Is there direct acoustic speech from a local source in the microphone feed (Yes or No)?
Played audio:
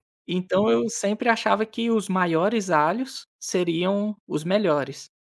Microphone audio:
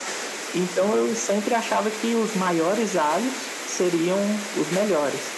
No